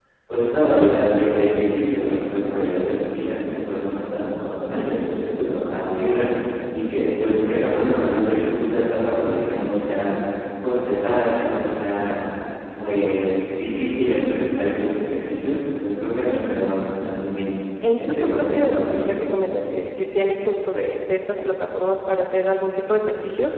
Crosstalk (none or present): present